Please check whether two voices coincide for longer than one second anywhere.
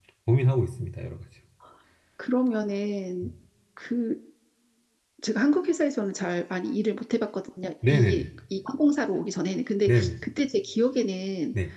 No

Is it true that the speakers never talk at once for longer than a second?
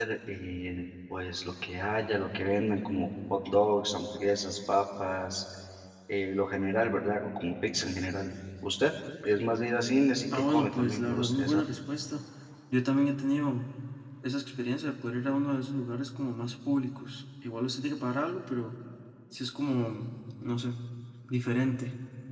No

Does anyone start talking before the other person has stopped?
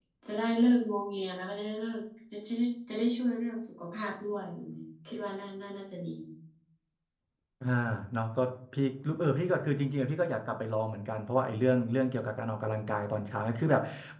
No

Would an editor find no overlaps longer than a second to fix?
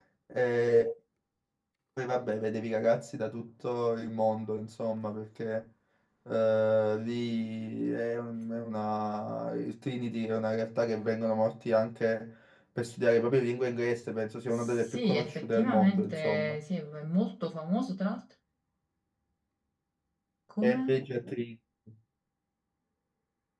No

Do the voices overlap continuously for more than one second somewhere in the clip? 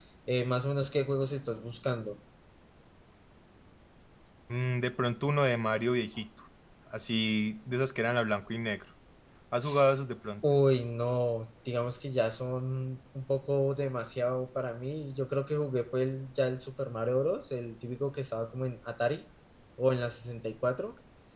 No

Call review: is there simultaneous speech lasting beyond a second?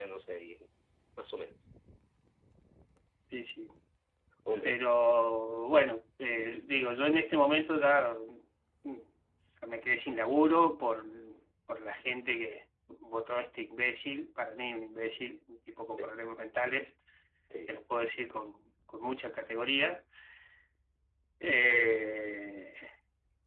No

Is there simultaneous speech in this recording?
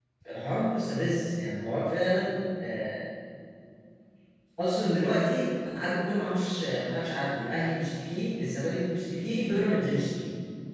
No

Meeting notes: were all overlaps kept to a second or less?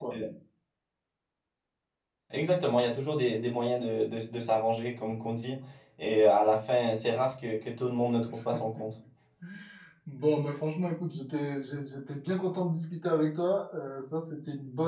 Yes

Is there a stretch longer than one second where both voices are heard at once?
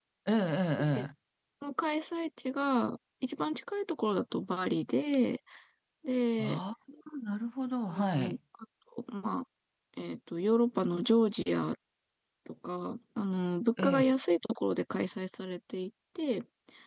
No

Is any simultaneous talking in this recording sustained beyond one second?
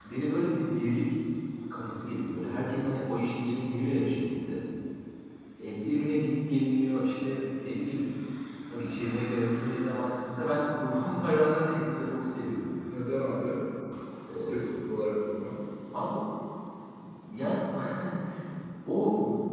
No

